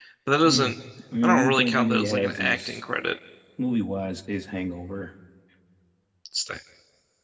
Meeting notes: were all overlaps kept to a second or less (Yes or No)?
No